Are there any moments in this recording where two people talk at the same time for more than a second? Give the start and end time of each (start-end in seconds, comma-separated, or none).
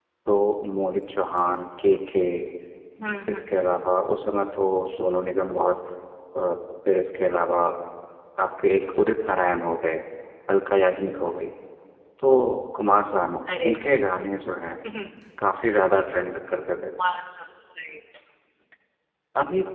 none